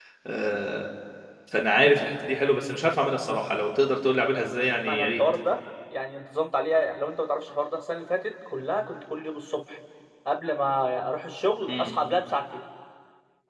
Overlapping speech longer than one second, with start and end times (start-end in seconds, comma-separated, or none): none